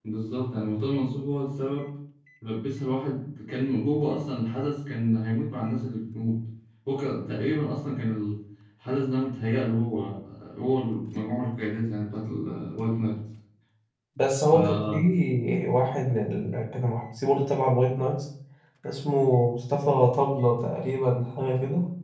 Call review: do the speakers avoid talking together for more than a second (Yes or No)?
Yes